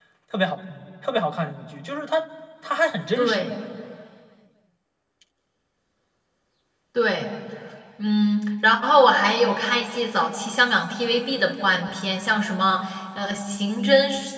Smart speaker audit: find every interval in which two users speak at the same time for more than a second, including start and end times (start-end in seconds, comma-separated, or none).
none